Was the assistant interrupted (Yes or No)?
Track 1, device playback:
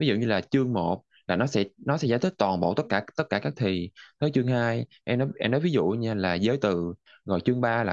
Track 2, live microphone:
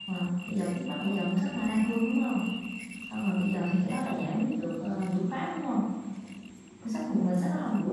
Yes